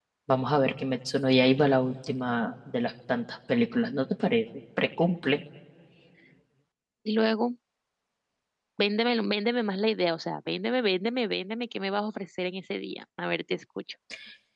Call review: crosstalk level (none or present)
none